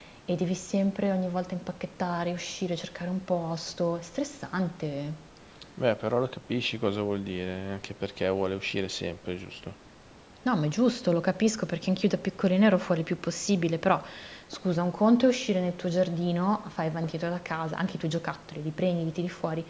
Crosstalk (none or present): none